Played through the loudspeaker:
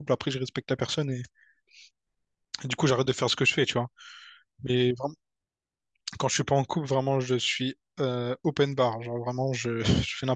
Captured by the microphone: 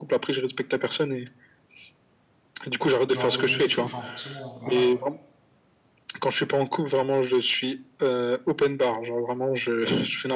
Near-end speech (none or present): present